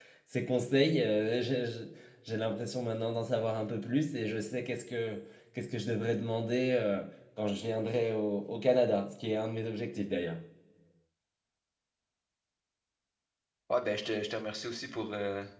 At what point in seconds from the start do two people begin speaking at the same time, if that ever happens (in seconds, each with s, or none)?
none